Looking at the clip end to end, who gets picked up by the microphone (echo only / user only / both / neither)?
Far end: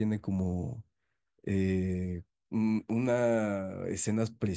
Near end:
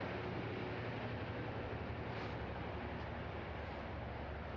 neither